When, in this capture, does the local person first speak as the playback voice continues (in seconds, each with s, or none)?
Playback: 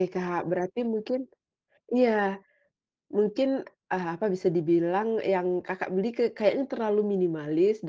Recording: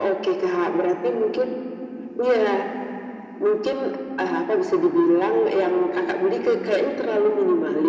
none